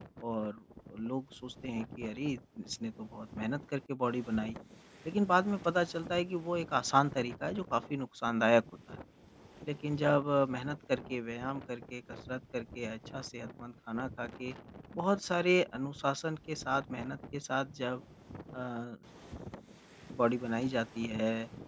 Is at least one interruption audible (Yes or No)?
No